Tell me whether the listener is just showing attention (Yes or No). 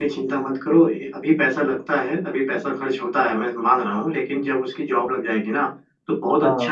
Yes